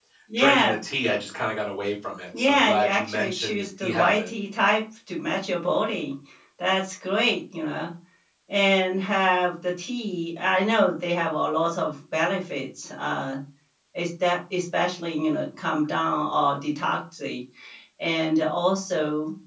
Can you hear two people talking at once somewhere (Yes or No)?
Yes